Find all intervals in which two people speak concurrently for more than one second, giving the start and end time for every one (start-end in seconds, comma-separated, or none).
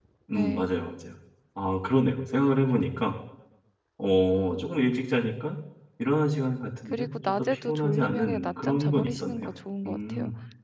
6.9-9.5